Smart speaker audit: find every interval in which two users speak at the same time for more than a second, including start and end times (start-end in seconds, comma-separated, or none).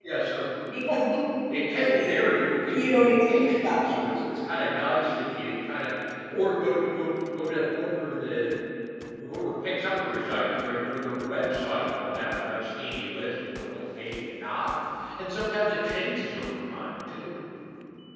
2.7-4.0